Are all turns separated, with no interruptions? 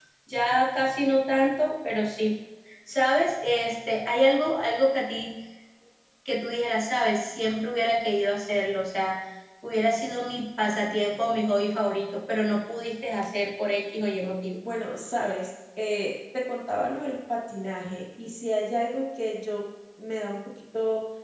Yes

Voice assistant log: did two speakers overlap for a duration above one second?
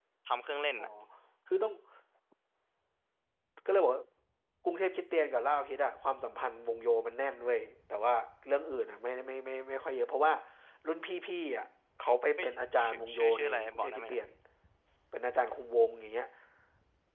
Yes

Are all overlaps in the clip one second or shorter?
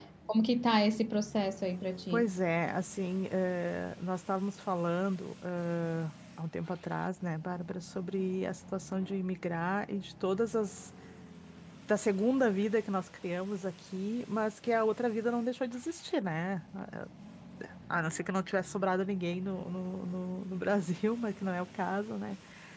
Yes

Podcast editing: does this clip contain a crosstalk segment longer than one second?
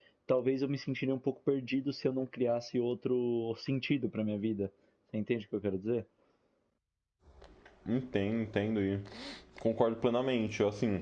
No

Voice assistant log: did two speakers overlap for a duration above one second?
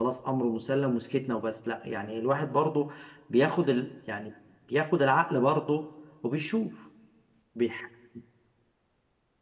No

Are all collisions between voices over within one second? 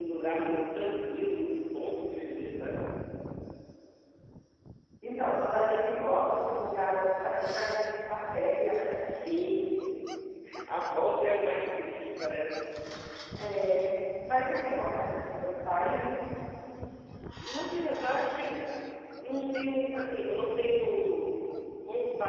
Yes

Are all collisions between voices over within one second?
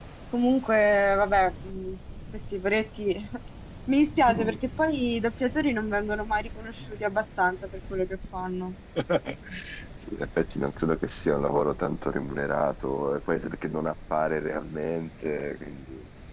Yes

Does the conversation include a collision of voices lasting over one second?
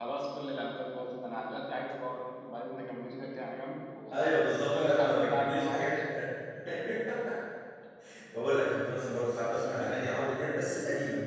Yes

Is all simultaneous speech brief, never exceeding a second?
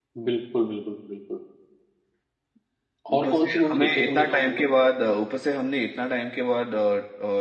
No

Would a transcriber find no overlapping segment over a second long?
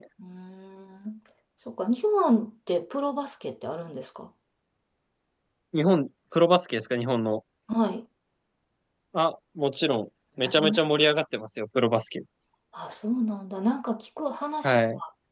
Yes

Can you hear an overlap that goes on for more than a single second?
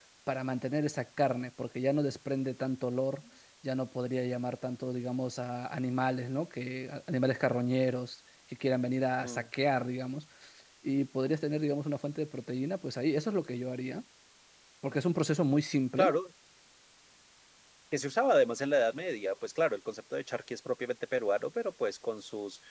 No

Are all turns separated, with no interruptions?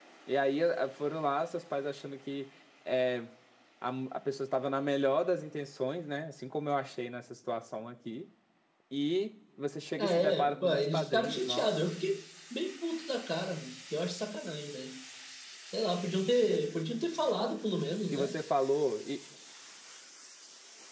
No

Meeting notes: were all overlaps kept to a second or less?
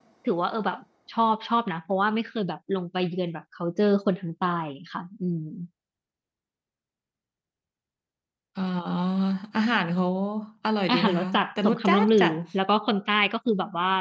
No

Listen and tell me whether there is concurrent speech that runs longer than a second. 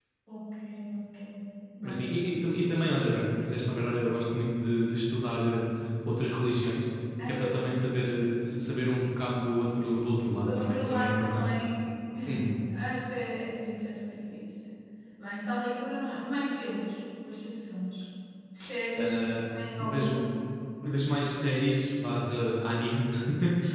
Yes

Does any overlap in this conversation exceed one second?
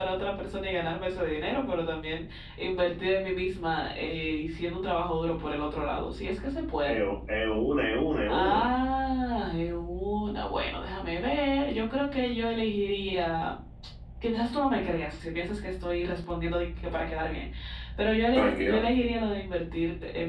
No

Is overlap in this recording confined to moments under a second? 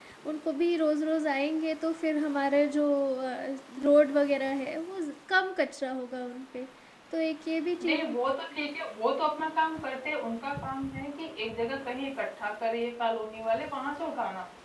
Yes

